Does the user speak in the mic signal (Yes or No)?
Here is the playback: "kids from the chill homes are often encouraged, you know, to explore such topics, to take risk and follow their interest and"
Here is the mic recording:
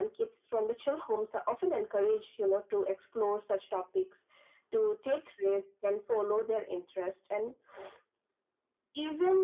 No